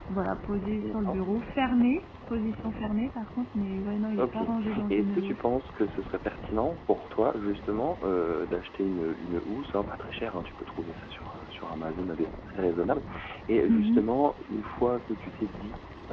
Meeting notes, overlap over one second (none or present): present